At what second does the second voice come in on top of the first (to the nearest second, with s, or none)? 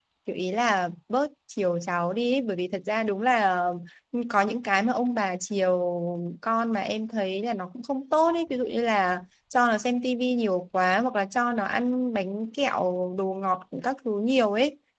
none